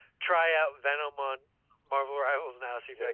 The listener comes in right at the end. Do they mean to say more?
Yes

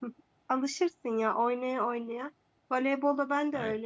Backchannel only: Yes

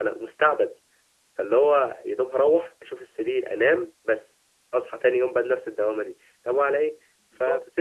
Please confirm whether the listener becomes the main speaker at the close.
No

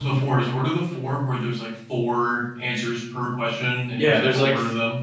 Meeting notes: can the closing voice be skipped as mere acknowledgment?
No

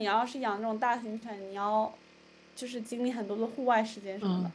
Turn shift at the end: Yes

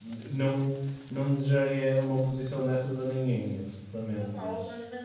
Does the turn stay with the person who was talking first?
No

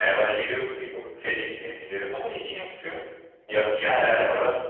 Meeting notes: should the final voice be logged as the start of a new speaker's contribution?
Yes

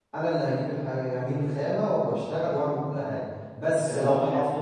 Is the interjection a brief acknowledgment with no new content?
No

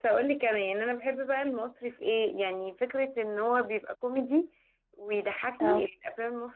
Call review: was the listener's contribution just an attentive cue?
Yes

